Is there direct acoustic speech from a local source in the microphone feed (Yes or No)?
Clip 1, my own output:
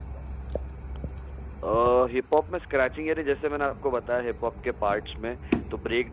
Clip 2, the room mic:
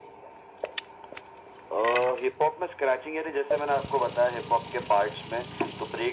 No